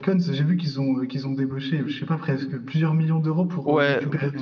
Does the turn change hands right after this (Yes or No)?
Yes